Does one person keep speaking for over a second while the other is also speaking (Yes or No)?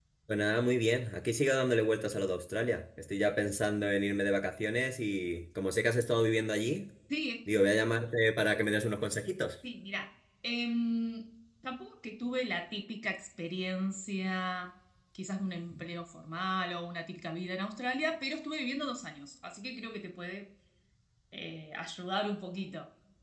No